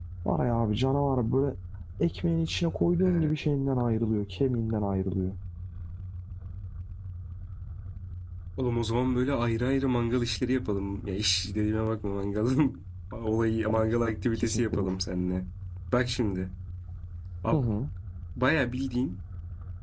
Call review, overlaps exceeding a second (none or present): none